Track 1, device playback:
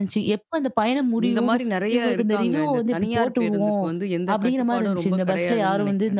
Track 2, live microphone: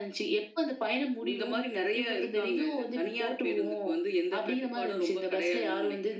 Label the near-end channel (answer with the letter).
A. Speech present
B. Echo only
B